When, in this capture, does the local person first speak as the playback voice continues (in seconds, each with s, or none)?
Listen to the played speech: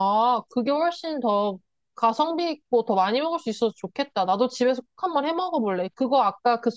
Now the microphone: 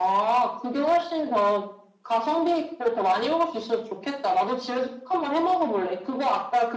none